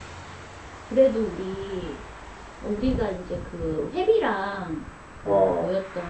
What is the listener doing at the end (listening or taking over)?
listening